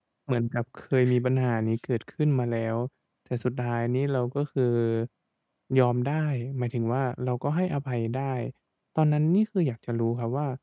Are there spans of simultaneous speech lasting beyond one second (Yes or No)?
No